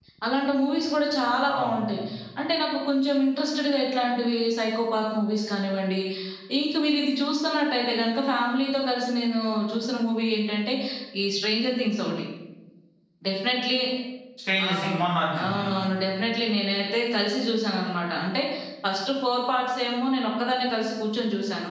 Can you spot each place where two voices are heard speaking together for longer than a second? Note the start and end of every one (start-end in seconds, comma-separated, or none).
none